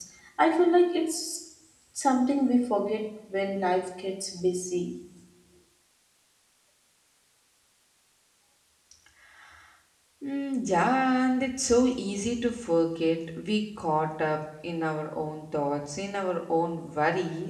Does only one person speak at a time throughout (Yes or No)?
Yes